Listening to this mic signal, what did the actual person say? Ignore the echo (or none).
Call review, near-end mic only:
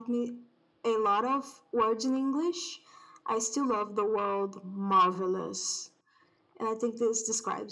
none